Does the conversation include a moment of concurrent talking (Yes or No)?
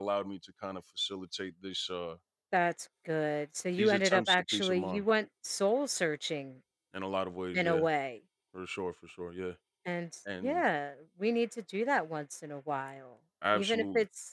Yes